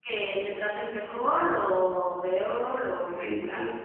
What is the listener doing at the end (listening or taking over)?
taking over